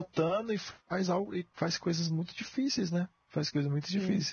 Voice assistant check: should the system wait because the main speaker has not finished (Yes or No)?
Yes